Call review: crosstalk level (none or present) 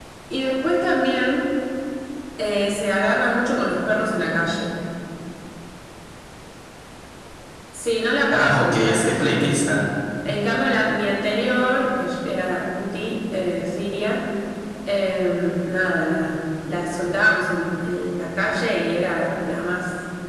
present